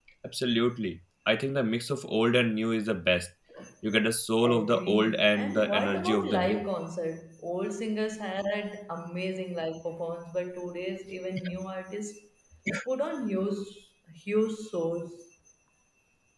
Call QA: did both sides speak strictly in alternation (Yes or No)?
No